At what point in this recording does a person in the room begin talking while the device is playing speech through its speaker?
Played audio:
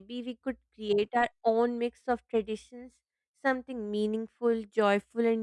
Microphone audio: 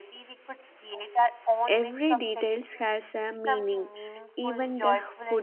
1.7 s

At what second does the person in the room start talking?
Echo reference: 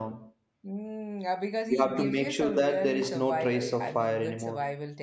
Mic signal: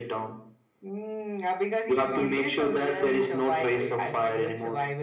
none

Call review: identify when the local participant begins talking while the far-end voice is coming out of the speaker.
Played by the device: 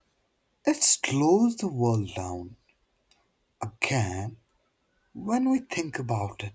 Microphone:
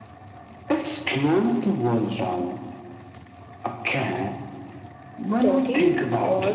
5.4 s

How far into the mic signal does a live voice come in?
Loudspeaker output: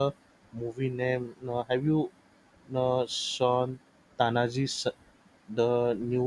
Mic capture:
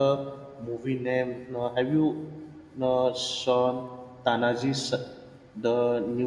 none

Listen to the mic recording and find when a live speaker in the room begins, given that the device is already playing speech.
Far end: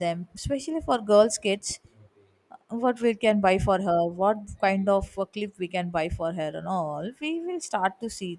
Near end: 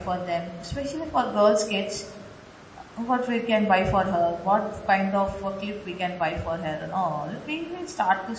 none

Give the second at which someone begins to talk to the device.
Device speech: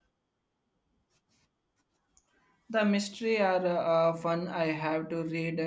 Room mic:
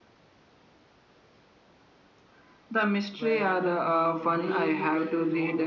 3.1 s

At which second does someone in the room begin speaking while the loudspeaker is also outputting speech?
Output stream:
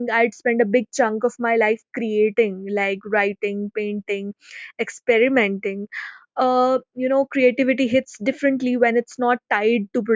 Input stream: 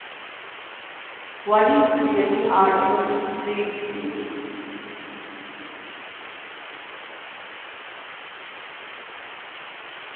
1.4 s

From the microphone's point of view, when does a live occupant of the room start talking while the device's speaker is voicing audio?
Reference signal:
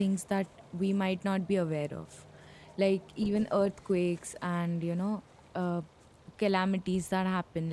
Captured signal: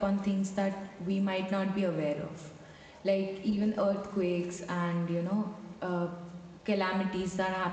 none

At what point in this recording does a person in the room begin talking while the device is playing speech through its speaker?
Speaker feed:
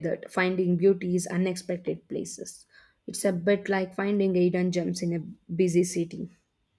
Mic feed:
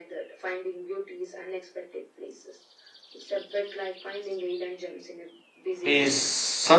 5.8 s

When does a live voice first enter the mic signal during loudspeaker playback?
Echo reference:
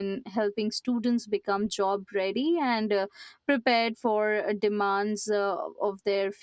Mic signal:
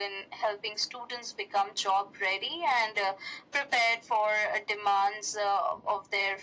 none

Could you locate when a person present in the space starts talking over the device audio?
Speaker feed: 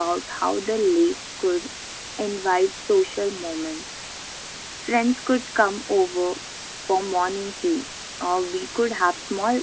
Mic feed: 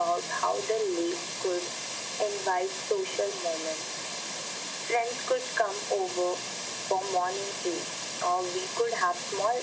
none

